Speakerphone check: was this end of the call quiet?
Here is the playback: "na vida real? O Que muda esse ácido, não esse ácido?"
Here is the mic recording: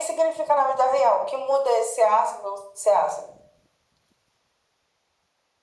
Yes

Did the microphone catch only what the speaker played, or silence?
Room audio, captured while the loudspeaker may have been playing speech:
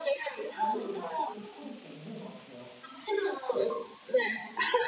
No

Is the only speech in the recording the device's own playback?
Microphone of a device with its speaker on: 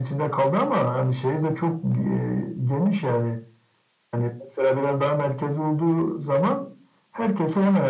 Yes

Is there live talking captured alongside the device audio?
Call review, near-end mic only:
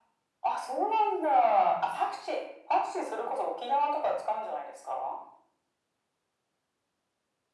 No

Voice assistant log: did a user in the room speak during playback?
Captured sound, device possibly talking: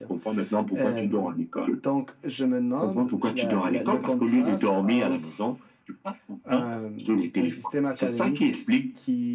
No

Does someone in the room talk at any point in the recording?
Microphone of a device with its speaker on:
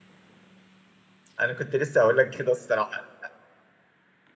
Yes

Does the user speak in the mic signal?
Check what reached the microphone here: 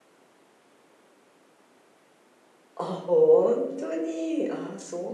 Yes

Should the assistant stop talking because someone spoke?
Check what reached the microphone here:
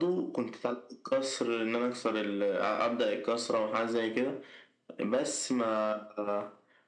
No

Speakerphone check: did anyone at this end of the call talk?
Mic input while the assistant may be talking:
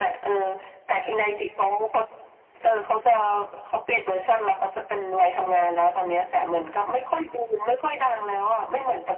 No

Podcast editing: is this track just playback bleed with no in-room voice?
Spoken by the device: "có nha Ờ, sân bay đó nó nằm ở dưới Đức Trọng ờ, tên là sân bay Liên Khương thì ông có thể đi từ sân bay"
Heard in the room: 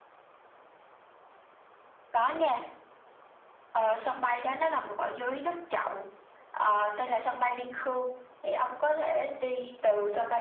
Yes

